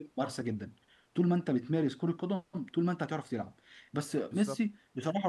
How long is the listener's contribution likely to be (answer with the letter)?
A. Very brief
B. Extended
A